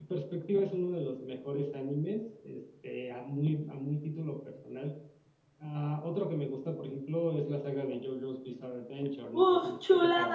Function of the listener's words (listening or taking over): taking over